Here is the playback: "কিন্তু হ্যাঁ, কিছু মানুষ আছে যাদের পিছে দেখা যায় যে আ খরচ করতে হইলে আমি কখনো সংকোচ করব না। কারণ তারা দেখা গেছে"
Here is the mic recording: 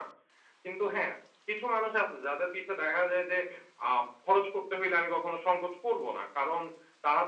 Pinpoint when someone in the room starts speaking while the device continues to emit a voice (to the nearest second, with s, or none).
none